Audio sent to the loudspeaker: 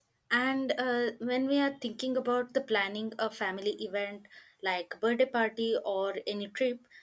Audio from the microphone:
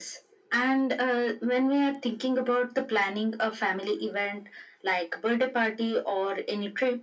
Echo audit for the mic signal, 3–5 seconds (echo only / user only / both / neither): echo only